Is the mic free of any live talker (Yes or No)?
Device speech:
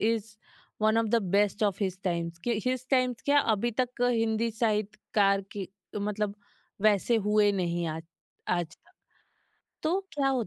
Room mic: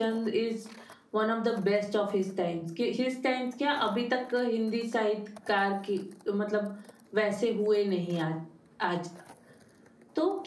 Yes